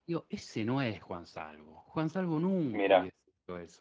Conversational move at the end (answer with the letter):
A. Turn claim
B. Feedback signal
B